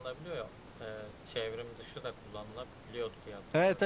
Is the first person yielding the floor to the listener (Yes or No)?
Yes